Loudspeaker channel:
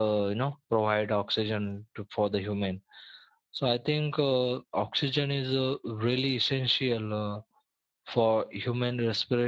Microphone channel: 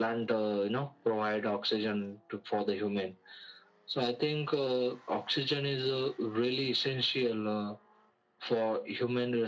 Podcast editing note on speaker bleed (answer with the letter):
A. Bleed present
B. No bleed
A